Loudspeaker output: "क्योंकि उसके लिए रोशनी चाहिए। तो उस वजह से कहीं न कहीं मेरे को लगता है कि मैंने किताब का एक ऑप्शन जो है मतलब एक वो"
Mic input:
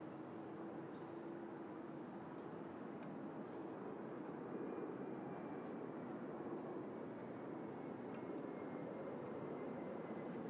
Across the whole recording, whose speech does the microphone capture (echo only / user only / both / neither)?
neither